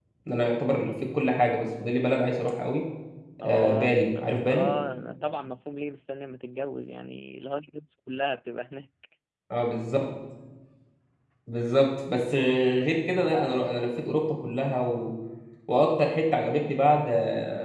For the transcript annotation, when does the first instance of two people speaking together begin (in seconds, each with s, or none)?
3.4 s